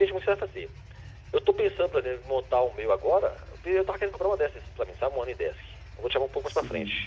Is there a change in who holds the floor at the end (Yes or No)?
No